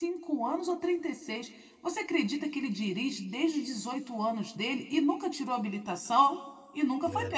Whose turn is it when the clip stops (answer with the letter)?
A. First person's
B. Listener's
B